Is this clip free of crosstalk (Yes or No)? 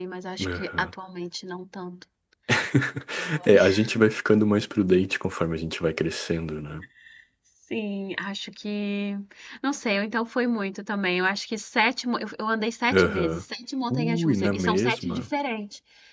No